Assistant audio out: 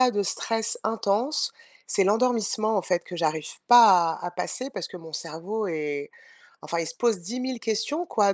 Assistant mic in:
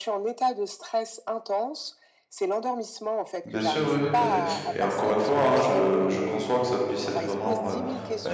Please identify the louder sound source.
user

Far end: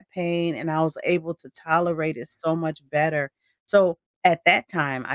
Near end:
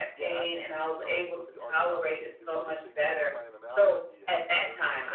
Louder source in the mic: echo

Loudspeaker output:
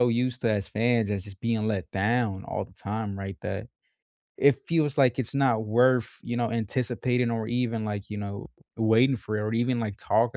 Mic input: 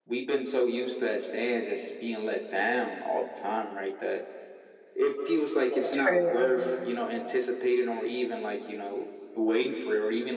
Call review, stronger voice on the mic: user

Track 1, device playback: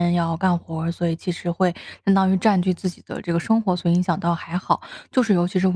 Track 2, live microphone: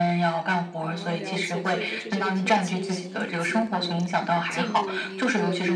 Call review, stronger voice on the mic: echo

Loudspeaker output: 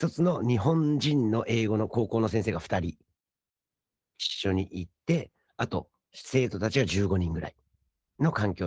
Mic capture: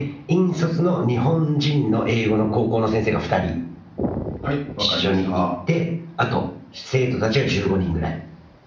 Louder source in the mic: echo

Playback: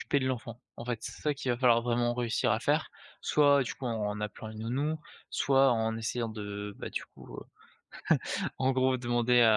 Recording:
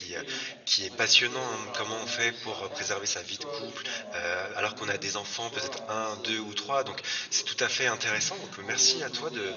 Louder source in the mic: user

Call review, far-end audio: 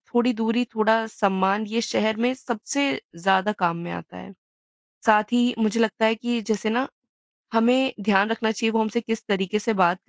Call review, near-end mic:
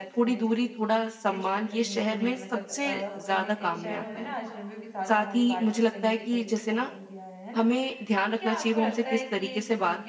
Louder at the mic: echo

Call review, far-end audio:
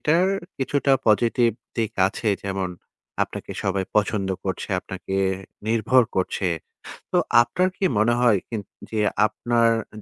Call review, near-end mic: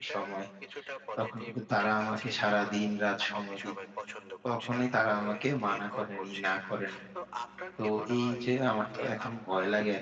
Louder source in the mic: user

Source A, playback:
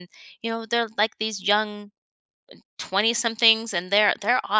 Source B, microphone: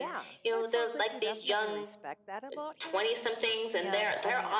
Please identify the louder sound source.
echo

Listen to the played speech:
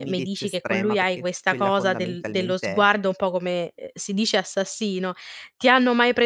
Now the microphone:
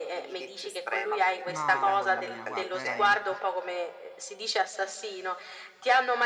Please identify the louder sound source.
echo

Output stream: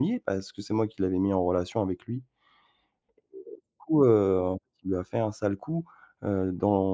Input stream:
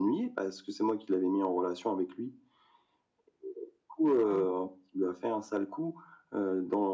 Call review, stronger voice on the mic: echo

